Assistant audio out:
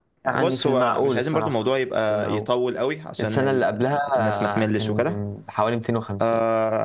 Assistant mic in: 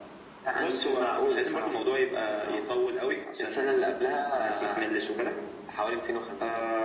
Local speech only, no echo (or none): none